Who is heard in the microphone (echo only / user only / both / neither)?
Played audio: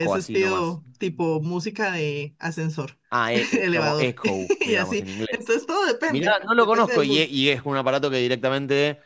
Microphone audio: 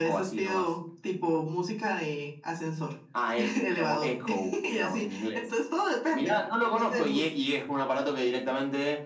echo only